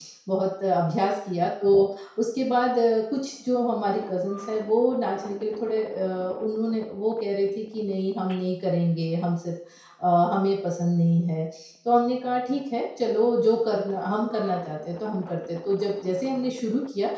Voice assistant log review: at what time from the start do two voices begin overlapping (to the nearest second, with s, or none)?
none